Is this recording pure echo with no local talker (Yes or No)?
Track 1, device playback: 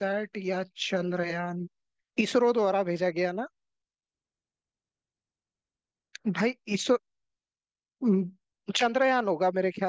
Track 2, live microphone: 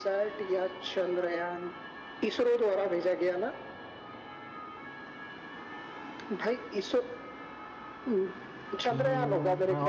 No